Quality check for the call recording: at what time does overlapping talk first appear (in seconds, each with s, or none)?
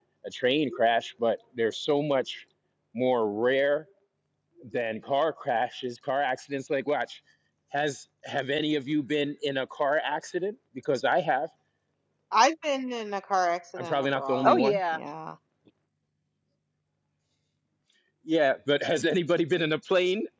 13.8 s